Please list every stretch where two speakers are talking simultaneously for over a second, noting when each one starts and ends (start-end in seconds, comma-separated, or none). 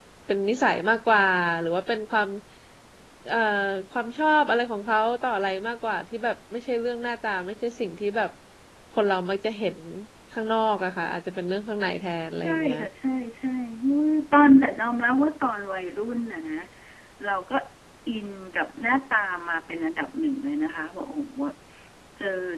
none